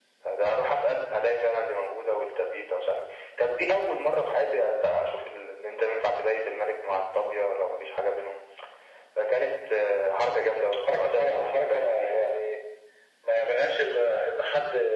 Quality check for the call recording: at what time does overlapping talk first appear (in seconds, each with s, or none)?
10.9 s